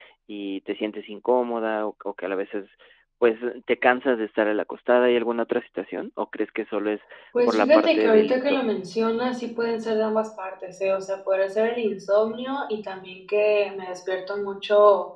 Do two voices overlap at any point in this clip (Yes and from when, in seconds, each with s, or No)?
Yes, from 7.3 s